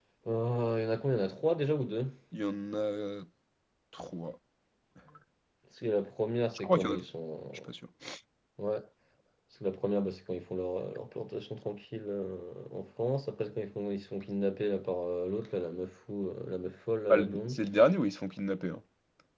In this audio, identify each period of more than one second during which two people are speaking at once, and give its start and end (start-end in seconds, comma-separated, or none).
none